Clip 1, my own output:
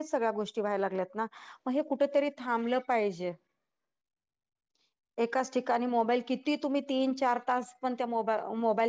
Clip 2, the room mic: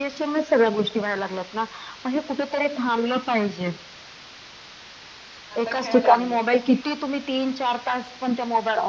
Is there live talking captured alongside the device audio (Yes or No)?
Yes